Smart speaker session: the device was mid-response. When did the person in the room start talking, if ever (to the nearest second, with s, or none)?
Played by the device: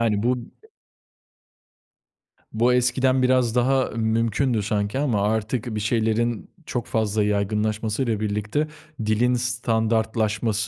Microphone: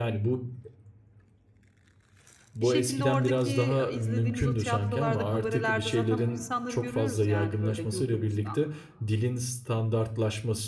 3 s